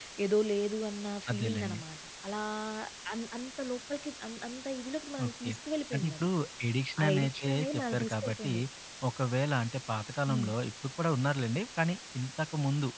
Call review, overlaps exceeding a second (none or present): present